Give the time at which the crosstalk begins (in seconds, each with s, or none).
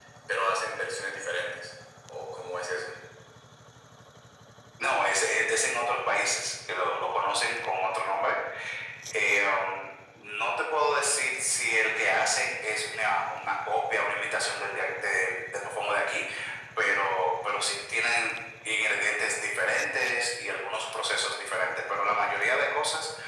none